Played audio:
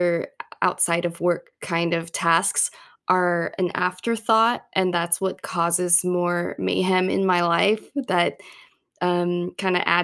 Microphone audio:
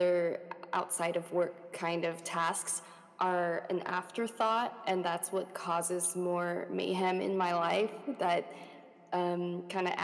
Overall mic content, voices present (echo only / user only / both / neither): echo only